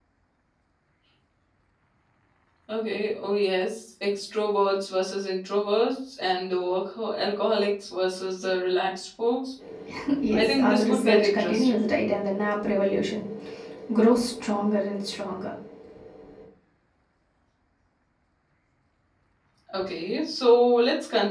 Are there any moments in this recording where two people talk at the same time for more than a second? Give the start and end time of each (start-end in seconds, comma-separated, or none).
10.3-11.9